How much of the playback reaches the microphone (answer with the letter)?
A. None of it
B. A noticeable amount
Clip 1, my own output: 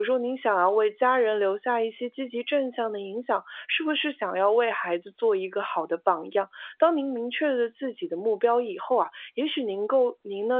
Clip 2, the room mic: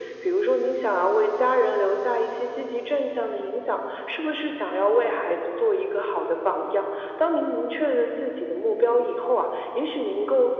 B